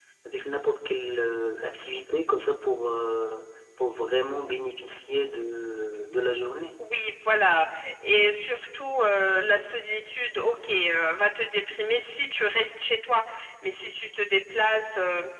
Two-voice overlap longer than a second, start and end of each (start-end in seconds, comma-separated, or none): none